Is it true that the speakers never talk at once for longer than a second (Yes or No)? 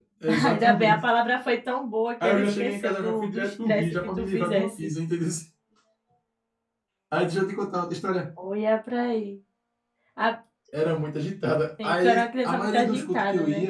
No